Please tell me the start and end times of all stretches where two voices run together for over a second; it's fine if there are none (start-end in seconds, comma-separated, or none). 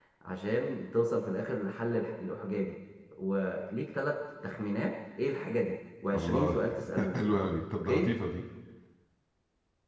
none